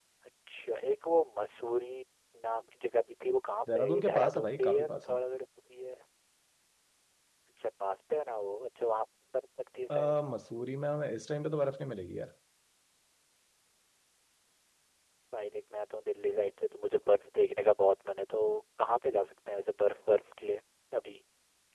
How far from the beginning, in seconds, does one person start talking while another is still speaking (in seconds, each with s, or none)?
3.7 s